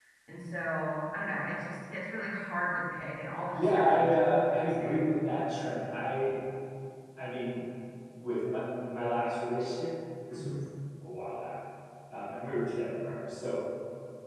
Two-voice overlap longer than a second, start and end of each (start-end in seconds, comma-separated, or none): 3.5-5.1